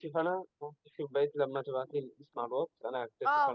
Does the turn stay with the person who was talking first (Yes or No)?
No